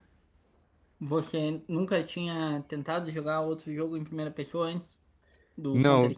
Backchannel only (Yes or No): No